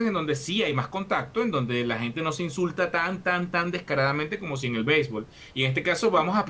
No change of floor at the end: Yes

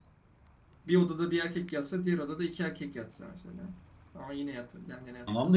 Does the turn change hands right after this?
Yes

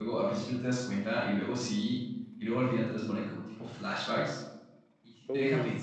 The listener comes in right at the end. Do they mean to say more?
No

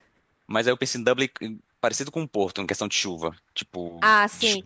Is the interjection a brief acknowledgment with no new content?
No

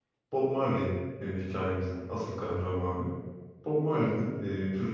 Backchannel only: Yes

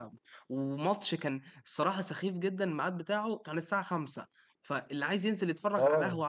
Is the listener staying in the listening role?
Yes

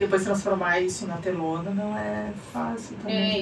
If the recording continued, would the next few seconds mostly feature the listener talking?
Yes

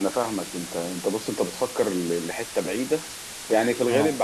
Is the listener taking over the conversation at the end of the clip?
No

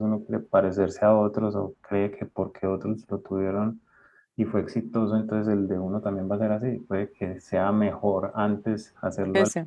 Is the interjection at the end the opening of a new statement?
No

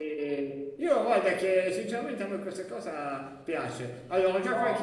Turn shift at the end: Yes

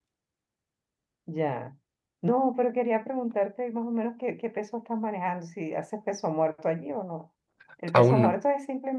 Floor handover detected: No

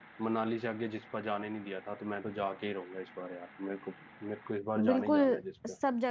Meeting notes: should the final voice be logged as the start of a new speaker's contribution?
Yes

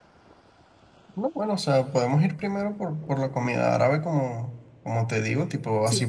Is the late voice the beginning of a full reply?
No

